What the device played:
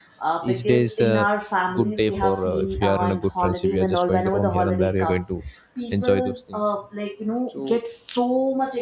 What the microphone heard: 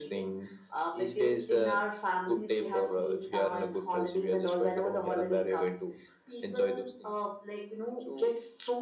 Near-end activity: none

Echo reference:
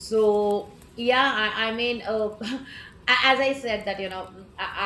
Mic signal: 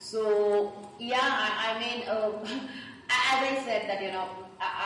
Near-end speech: none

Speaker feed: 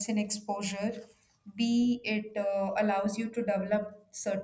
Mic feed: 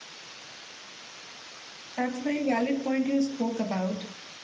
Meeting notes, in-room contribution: present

